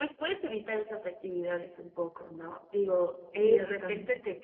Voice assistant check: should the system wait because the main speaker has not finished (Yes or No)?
Yes